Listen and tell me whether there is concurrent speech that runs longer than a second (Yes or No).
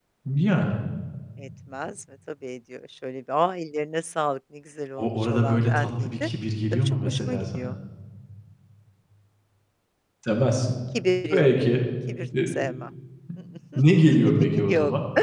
Yes